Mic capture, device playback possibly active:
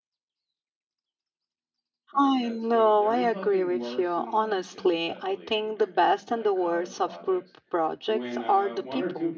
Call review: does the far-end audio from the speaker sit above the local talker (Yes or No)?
No